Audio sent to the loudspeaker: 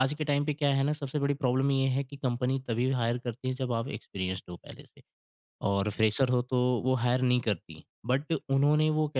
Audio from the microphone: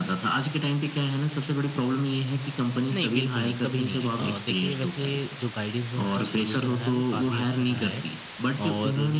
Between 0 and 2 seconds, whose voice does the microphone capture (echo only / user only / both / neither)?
echo only